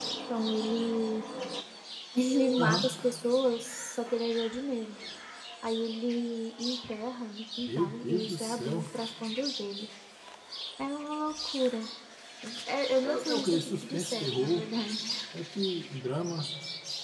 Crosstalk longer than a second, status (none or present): present